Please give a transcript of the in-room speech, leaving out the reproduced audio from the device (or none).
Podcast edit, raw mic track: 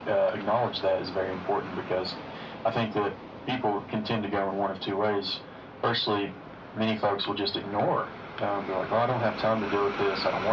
none